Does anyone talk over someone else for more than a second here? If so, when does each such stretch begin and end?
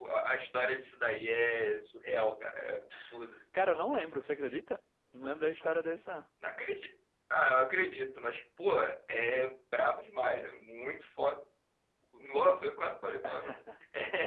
none

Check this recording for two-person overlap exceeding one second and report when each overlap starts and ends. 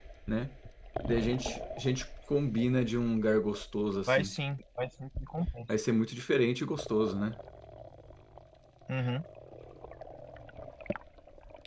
none

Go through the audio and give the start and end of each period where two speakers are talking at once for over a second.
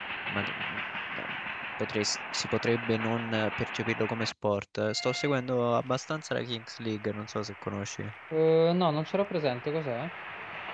none

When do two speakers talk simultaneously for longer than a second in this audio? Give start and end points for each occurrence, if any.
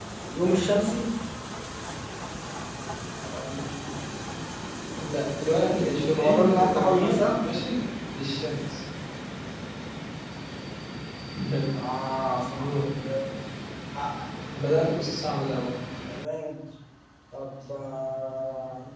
5.6-7.3

